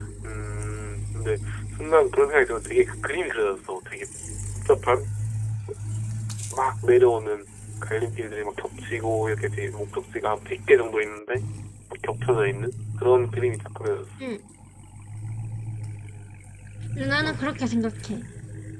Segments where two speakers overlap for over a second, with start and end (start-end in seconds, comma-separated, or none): none